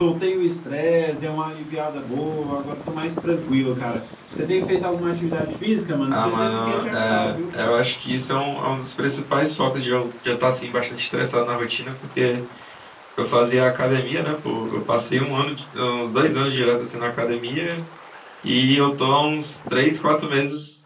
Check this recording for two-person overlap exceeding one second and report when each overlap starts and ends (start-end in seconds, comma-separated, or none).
6.1-7.3